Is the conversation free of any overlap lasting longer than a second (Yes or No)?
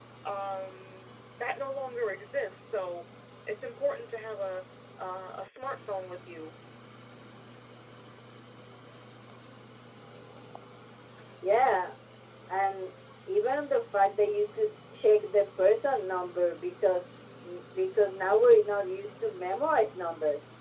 Yes